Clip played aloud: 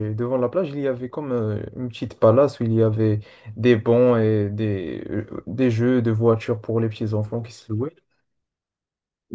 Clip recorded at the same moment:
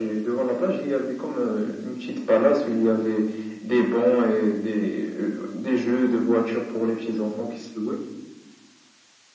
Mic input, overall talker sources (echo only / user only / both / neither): echo only